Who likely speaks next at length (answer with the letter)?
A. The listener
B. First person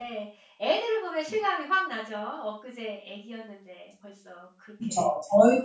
A